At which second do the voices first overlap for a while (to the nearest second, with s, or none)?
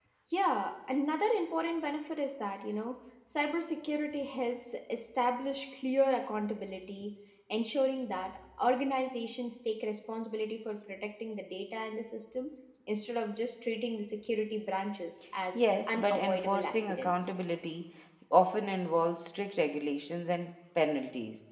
16 s